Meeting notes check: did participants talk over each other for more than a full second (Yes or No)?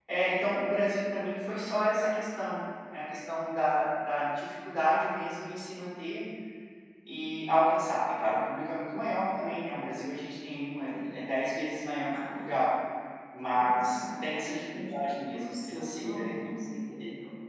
Yes